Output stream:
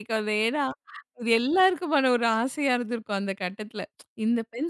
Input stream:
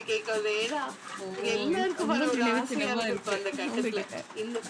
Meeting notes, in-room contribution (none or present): present